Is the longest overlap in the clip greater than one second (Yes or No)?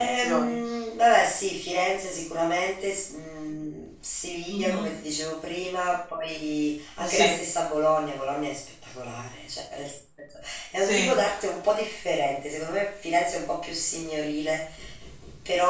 No